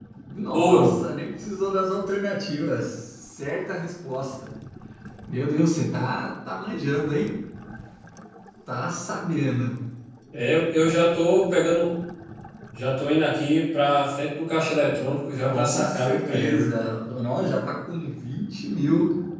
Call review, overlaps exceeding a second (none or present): present